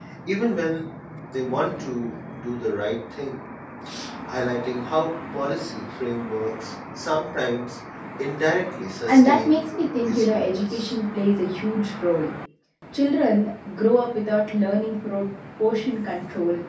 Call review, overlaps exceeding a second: present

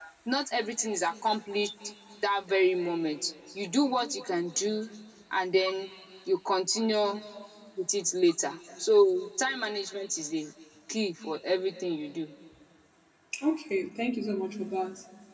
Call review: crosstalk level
none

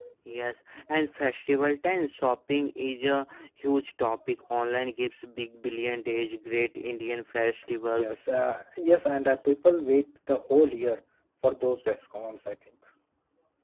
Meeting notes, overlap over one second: none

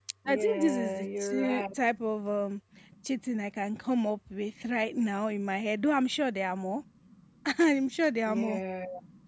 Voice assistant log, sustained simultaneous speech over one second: present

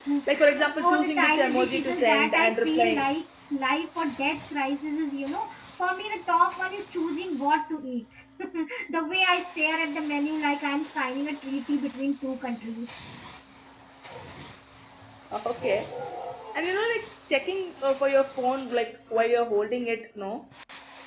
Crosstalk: present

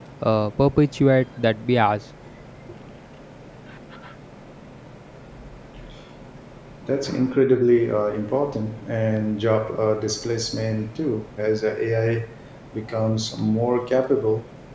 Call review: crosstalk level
none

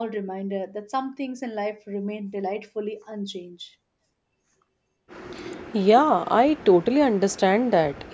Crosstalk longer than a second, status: none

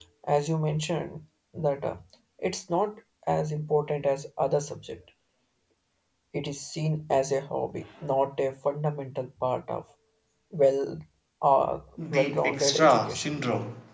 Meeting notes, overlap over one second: present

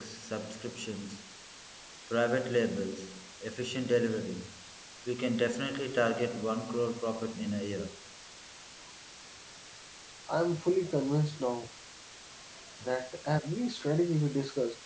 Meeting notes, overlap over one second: none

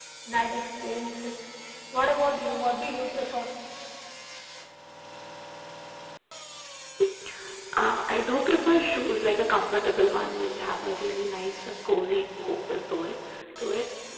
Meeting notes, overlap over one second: none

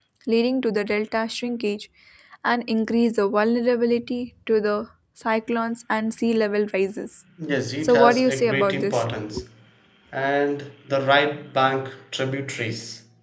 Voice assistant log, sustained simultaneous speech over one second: present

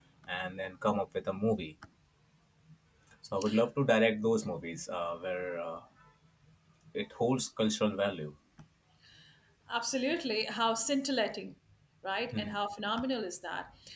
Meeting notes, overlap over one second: none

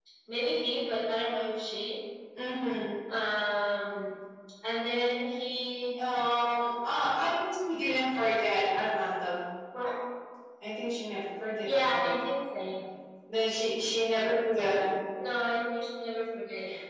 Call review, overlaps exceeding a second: none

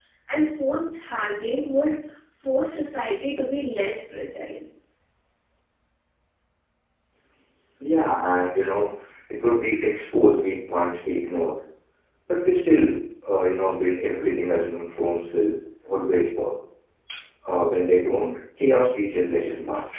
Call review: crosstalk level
none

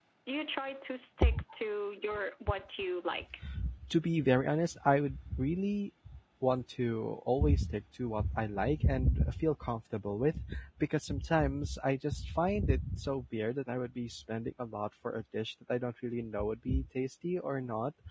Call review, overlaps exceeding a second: none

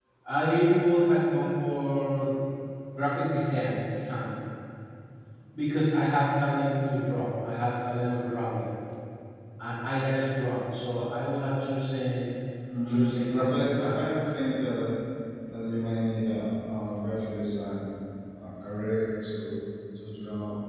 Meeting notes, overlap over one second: present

